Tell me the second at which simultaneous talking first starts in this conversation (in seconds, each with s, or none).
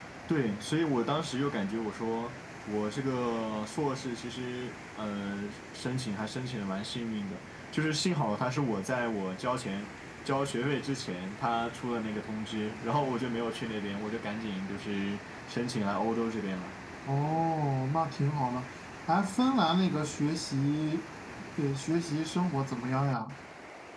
none